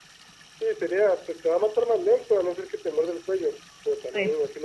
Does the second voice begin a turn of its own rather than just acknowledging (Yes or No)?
No